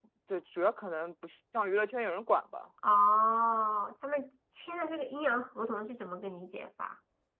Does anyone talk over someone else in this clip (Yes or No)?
No